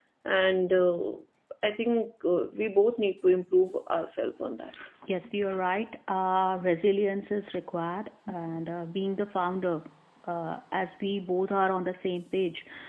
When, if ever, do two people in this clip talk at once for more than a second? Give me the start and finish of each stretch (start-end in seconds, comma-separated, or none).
none